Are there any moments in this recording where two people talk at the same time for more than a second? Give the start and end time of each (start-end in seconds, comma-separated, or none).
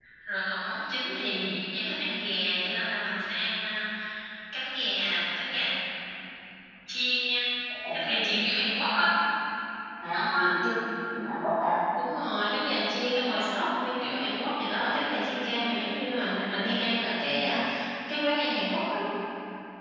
7.9-9.1